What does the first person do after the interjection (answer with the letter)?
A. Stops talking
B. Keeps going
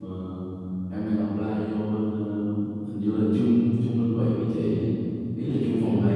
A